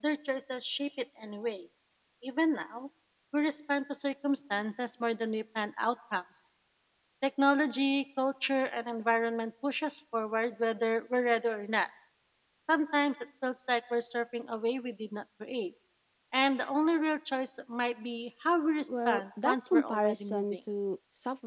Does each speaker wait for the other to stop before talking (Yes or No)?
No